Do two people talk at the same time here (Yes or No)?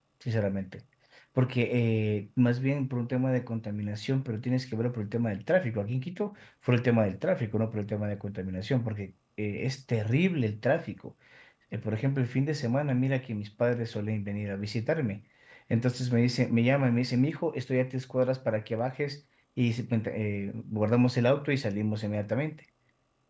No